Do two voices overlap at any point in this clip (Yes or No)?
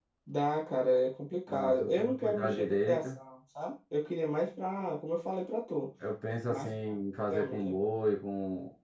Yes